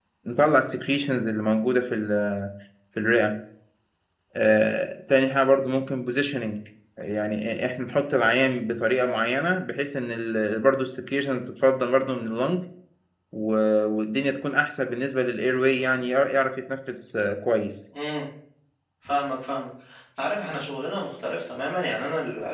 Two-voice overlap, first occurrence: none

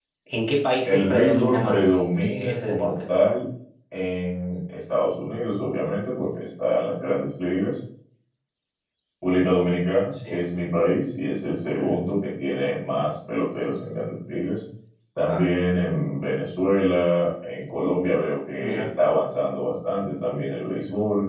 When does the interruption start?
1 s

